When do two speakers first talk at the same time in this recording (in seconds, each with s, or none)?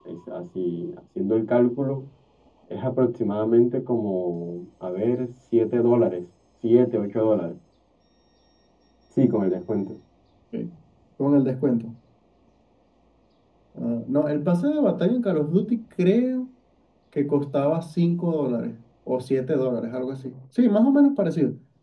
none